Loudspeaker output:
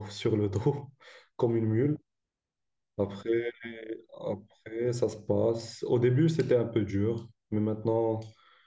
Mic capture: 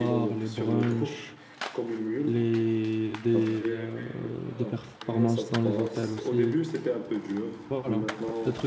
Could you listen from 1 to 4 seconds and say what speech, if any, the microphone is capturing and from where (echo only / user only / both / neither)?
both